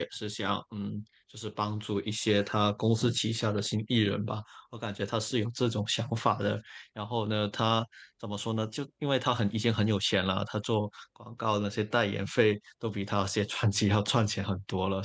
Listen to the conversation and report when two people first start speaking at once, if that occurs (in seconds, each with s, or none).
none